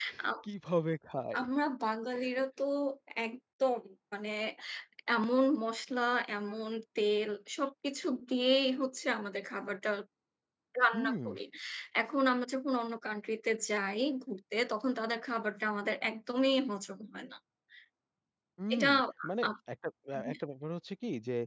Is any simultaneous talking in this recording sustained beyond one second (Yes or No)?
No